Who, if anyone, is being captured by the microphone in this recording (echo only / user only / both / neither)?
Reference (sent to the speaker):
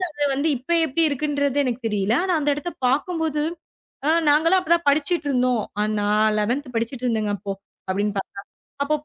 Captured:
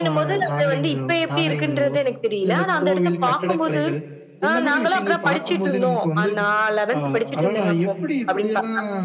both